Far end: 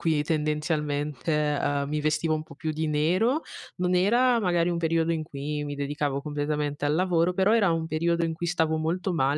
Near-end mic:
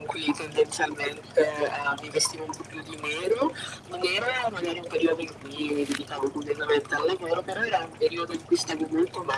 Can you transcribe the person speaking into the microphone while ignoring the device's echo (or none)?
none